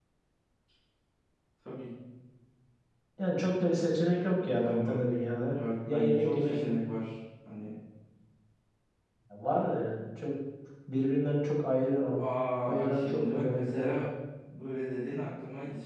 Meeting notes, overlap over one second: present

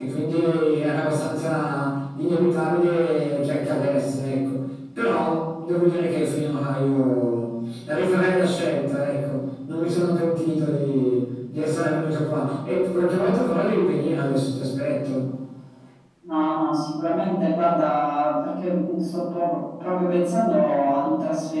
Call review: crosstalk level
none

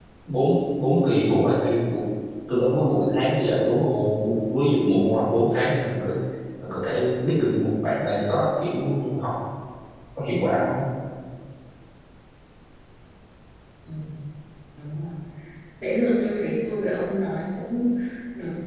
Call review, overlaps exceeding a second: none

